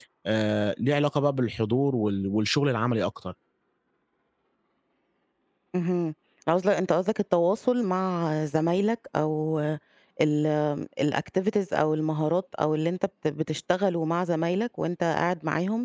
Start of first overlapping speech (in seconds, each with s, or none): none